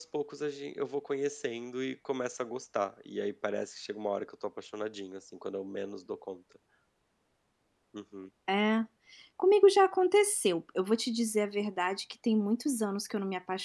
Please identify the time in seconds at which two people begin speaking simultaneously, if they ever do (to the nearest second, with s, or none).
none